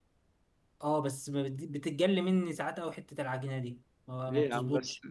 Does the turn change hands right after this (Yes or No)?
Yes